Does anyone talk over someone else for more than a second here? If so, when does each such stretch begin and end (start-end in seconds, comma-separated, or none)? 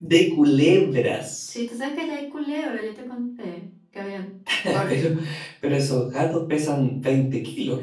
none